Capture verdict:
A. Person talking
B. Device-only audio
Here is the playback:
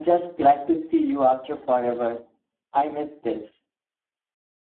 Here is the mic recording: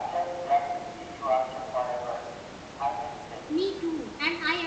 A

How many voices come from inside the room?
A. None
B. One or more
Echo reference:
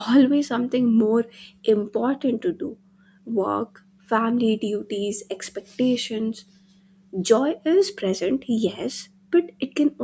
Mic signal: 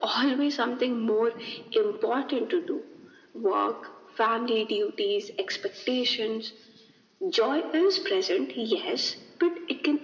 A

